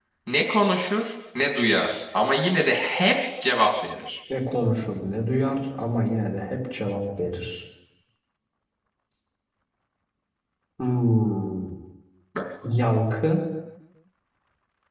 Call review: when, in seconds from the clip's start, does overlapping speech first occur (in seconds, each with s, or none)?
none